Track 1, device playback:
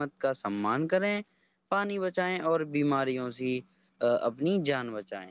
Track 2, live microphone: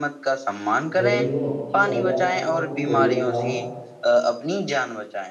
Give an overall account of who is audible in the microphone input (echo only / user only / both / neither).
both